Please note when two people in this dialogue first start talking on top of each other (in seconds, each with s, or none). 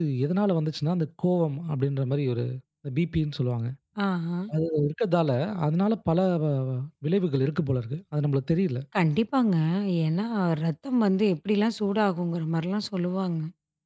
none